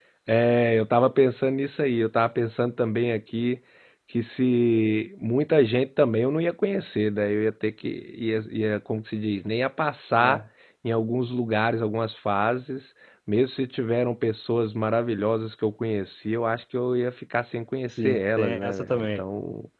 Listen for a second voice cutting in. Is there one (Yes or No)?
Yes